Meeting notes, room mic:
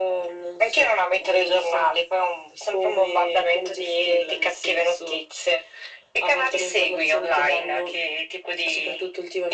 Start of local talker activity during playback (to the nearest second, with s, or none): none